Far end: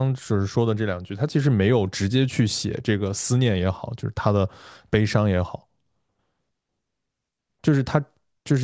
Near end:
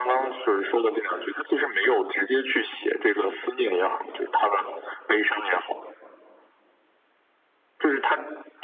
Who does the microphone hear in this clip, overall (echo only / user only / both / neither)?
echo only